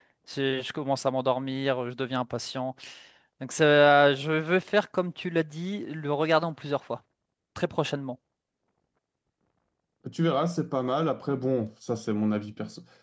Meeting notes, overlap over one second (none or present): none